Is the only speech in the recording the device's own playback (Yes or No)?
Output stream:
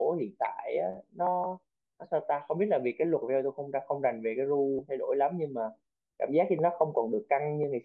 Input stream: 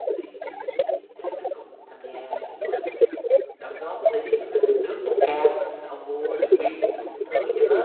No